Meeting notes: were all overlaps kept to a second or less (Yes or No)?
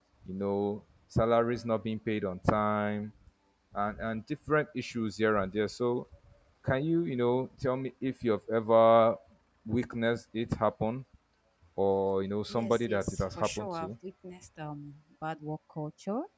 No